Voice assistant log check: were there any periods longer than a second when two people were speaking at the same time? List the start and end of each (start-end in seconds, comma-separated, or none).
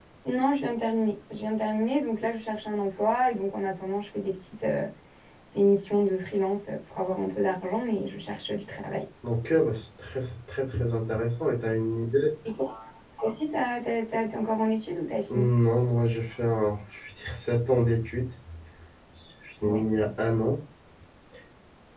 none